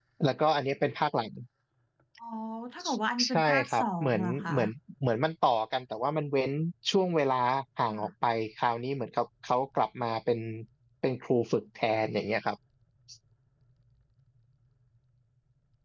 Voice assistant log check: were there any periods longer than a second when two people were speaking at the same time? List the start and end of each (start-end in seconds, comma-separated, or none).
3.3-4.6